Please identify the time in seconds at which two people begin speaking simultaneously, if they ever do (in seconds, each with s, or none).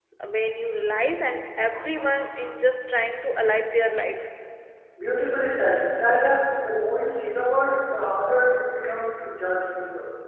none